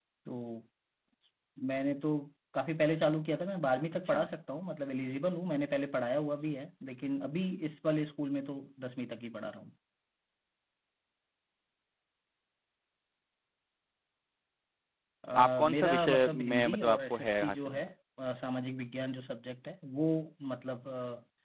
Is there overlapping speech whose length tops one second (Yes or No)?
Yes